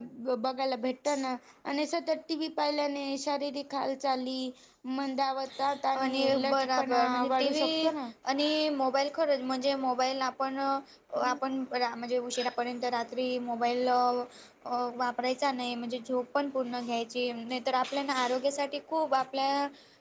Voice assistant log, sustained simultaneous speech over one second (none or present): present